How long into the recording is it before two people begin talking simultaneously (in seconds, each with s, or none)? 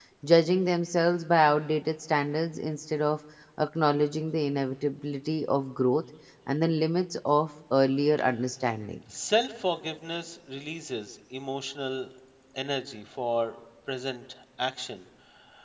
none